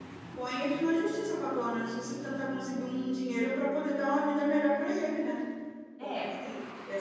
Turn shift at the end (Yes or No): No